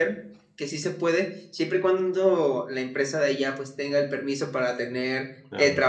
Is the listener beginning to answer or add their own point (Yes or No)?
No